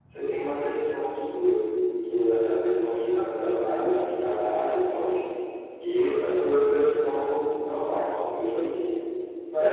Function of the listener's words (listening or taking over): taking over